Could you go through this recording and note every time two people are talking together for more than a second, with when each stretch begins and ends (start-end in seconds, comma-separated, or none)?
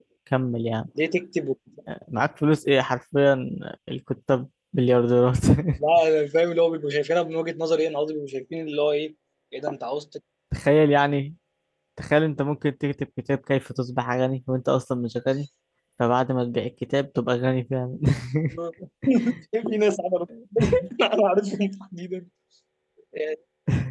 none